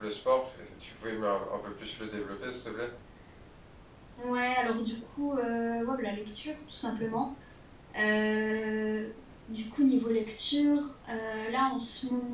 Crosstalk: none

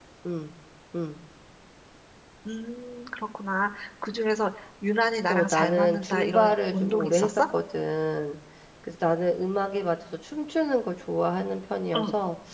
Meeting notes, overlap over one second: present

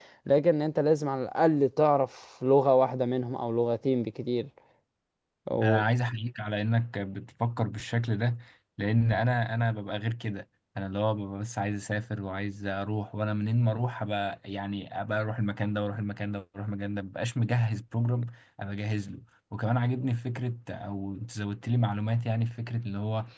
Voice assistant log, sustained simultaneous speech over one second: none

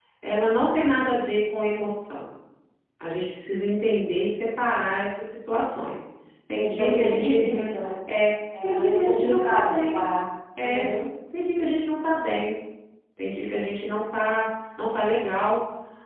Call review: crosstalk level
present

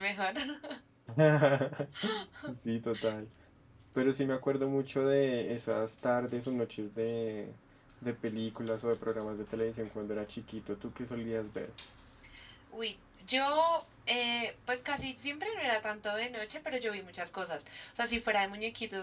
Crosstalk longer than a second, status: none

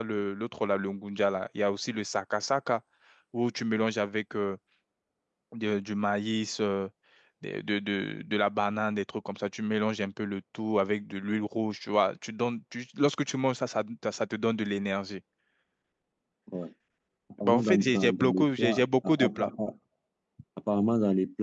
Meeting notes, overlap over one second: present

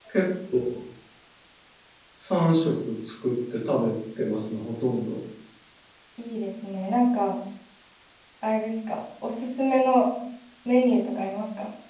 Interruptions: none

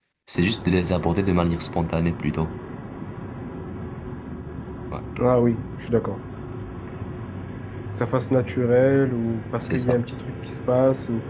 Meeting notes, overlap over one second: none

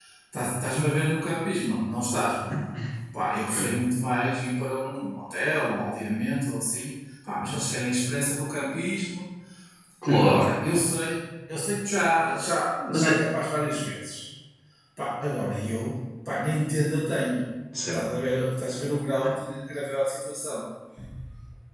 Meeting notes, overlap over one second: none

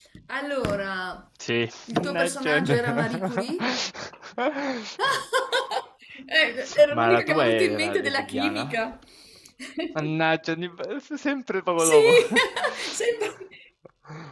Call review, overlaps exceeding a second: present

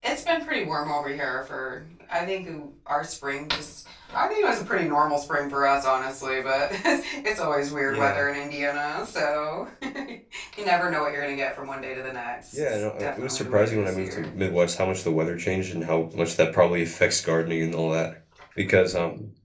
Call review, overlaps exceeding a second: present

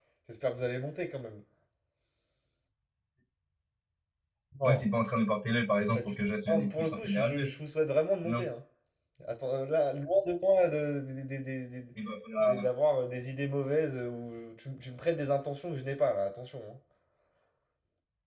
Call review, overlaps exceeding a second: present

